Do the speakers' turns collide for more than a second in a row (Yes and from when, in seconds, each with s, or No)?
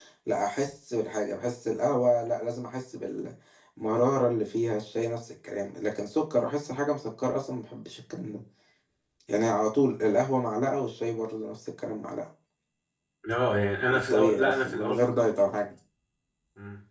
Yes, from 13.9 s